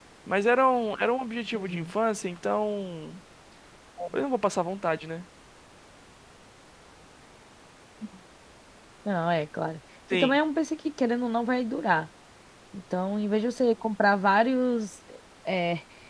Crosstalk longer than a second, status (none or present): none